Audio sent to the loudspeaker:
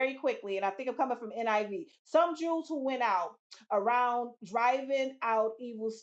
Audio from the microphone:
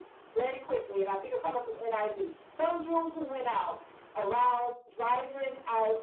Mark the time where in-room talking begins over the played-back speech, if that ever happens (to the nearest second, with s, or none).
none